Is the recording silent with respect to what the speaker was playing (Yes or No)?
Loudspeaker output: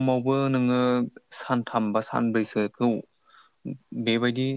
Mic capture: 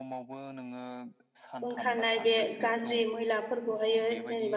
No